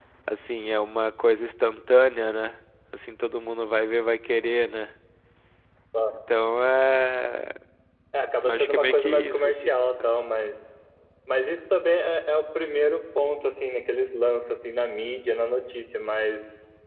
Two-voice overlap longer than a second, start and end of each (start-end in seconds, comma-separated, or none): 8.4-9.7